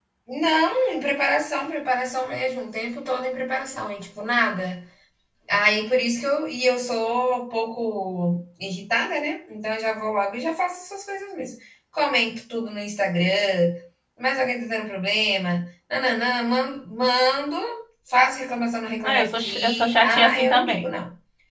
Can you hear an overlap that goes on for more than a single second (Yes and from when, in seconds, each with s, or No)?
Yes, from 19.0 s